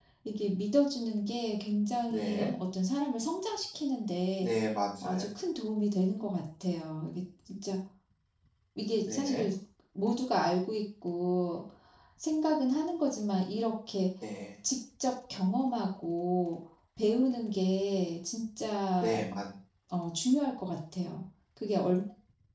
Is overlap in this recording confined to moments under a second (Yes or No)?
Yes